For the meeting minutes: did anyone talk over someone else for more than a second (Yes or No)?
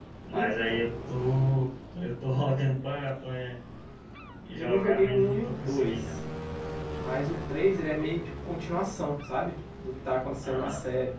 Yes